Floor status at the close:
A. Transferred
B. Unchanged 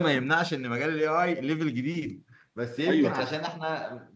B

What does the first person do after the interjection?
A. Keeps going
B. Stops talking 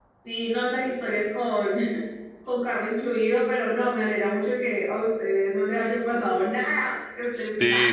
B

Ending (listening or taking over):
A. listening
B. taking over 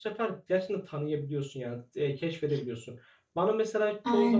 A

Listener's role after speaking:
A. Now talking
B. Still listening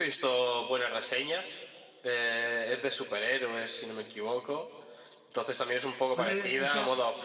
B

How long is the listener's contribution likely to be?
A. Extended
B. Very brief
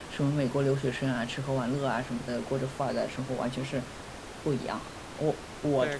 A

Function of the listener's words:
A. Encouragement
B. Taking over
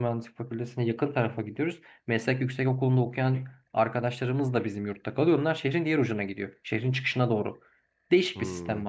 A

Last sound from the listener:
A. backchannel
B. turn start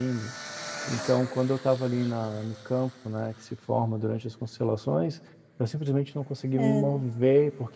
A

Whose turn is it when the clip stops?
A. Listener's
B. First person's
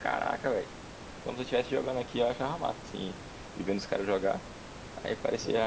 B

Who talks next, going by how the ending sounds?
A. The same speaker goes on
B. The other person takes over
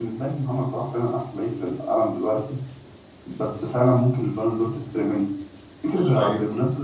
A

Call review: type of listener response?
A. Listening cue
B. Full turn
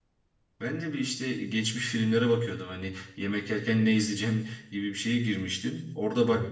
A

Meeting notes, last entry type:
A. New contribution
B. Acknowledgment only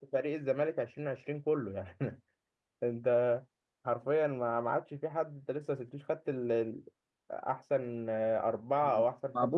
A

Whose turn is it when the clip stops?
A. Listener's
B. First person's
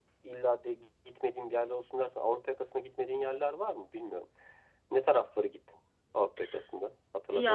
A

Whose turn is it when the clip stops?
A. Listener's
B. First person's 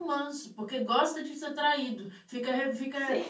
B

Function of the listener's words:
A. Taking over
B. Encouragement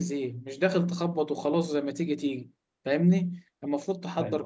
B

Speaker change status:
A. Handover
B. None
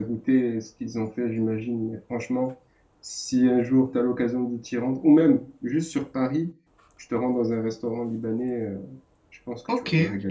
A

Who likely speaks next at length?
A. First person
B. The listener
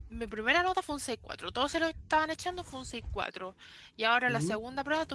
A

